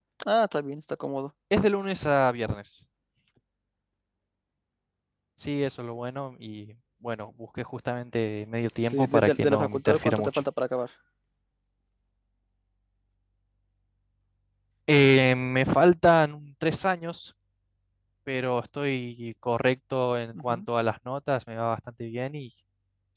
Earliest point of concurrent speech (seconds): 8.9 s

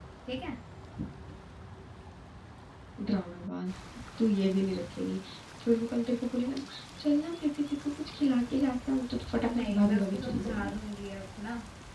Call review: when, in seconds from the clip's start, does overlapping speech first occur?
9.5 s

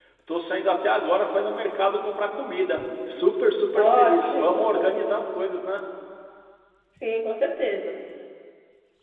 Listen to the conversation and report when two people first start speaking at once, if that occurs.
3.8 s

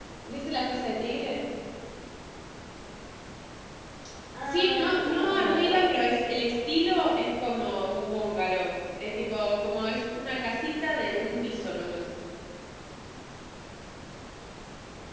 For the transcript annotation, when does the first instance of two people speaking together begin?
4.5 s

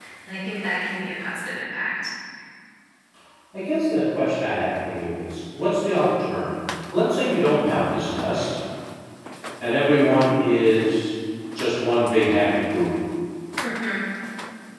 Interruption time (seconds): none

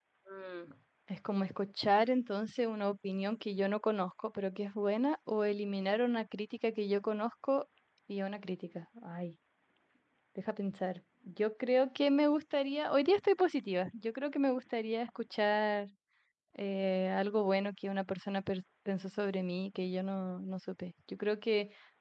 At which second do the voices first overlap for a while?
none

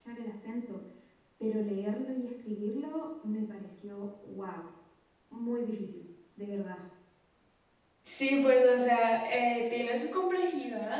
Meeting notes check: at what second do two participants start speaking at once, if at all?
none

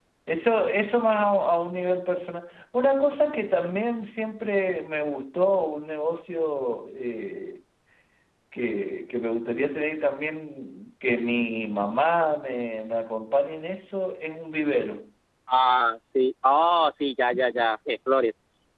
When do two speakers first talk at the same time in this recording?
none

